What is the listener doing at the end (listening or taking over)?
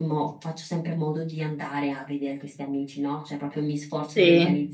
listening